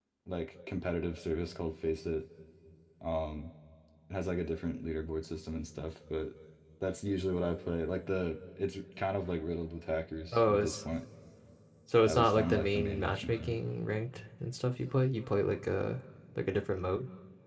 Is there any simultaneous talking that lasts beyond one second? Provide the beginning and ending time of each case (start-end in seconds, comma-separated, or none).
12.0-13.6